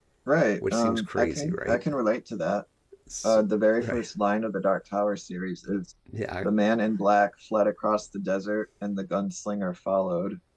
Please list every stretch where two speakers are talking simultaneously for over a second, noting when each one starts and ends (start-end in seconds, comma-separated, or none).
0.6-1.8